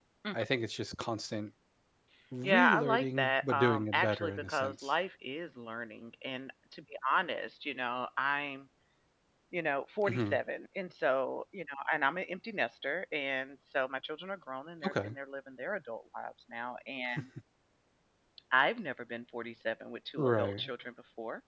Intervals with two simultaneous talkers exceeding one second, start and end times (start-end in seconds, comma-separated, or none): 2.4-4.9